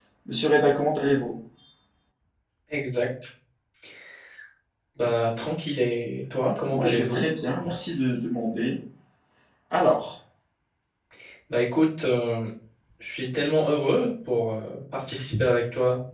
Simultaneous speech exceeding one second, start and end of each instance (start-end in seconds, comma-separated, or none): none